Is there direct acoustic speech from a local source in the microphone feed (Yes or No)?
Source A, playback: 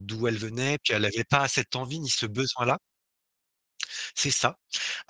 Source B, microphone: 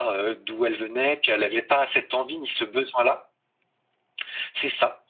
No